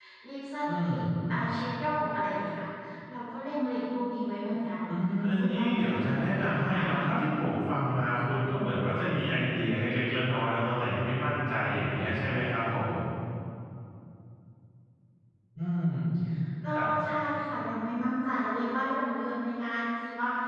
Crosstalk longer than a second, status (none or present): present